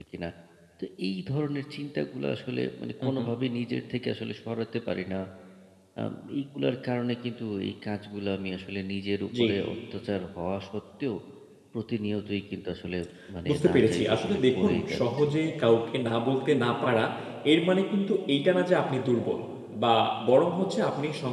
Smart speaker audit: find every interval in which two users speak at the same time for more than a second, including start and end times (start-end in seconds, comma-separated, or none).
13.5-15.3